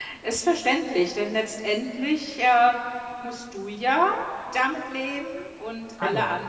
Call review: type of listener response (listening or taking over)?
listening